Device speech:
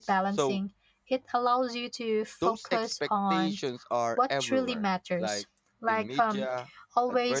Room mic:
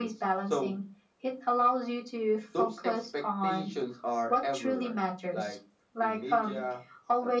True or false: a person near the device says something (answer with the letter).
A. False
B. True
A